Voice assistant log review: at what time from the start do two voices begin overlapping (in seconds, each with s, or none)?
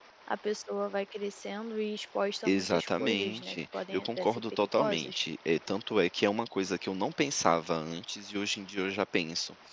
2.4 s